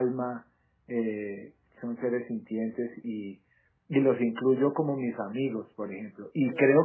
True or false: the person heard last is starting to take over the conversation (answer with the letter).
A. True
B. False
B